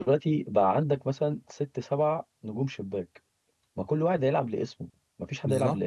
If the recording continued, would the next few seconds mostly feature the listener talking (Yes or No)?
Yes